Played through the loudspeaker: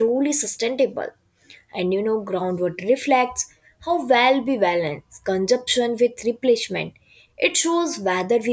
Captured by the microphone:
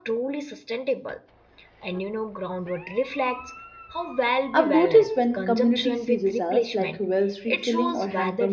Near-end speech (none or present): present